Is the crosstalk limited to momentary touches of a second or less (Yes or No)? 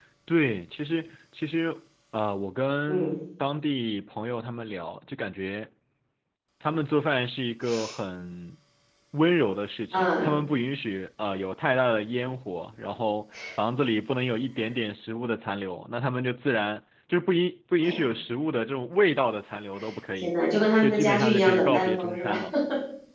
No